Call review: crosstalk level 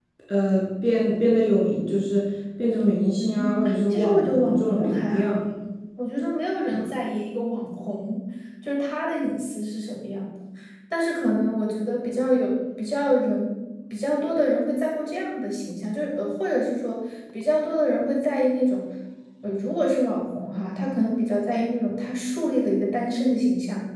present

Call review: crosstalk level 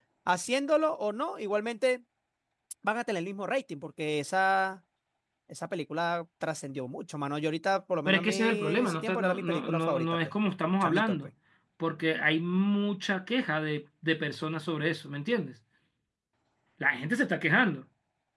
present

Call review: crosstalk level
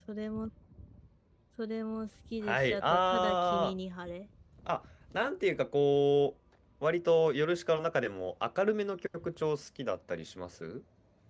present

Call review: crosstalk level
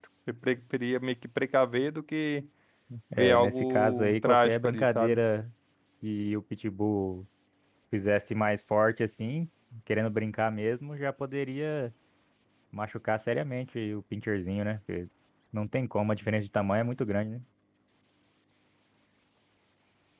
present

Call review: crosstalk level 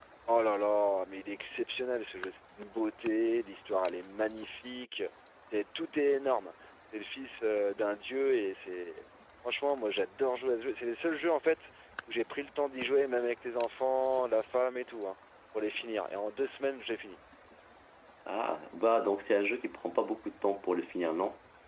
none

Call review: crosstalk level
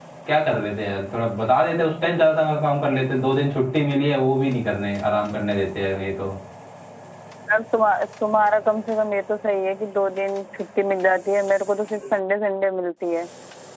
none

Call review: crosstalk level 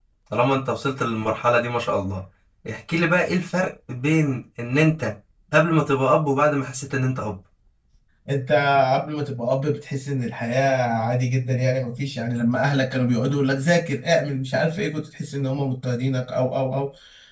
none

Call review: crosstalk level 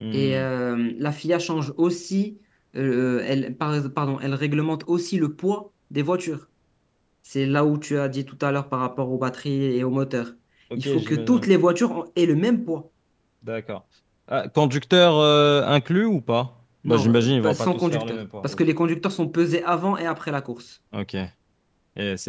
present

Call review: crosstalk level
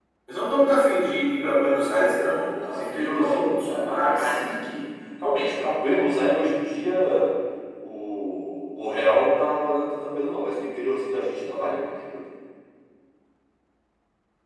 present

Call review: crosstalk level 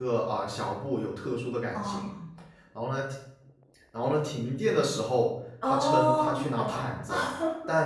present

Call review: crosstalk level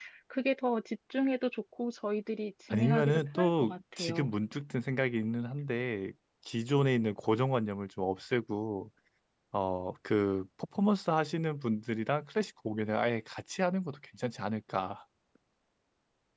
present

